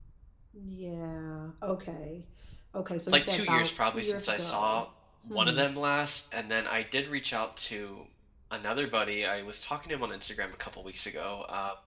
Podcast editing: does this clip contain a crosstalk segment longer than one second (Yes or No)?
Yes